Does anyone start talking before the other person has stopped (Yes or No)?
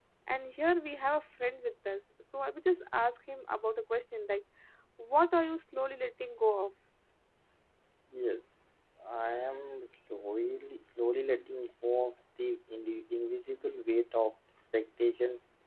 No